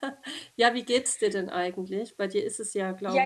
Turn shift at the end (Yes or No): Yes